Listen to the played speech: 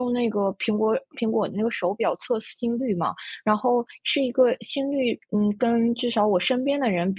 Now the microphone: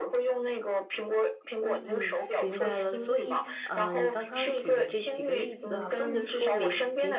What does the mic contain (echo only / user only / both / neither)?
both